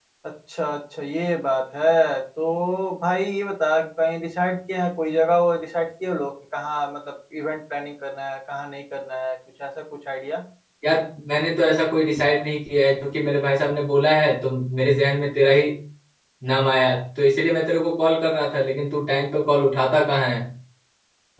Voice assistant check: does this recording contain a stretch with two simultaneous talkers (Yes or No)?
No